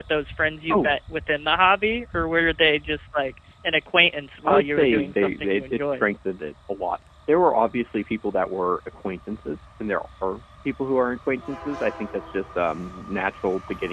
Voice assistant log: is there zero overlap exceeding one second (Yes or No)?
No